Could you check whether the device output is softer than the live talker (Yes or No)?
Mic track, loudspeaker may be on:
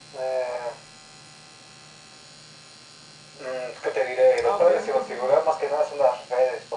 No